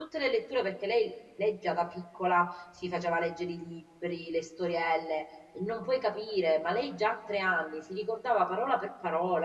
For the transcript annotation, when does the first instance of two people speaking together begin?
none

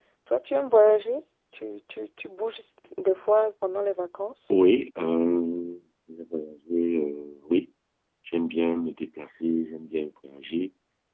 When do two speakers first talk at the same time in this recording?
none

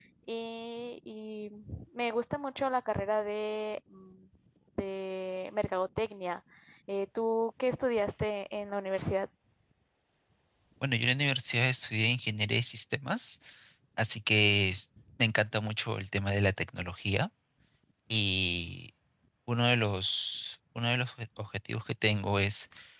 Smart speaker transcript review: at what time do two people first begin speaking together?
none

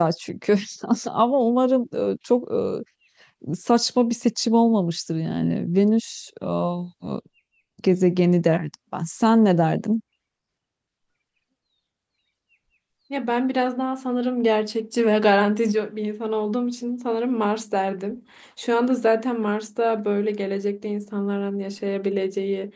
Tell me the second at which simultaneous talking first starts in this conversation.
none

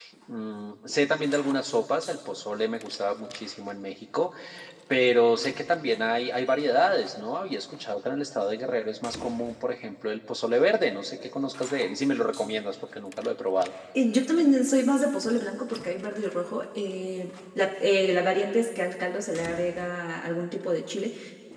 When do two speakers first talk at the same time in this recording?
none

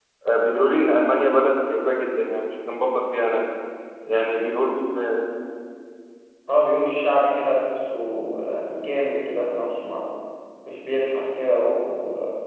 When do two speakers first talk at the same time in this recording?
none

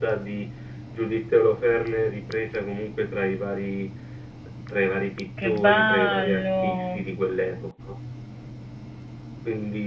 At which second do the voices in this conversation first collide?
5 s

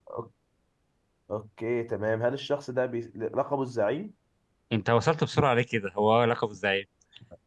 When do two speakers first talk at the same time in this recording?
none

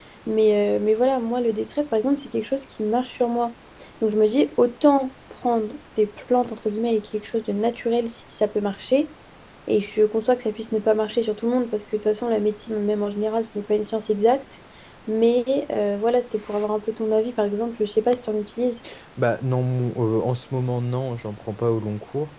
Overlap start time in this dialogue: none

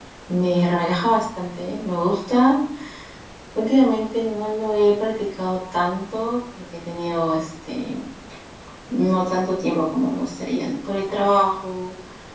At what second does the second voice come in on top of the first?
none

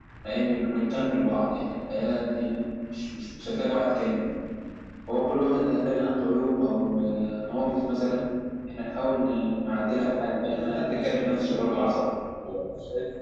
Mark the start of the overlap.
10 s

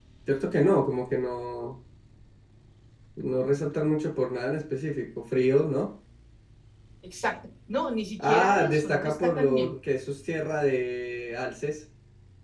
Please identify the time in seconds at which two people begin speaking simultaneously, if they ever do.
8 s

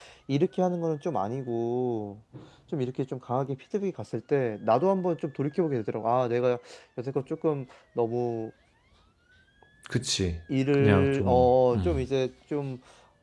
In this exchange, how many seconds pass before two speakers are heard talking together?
11 s

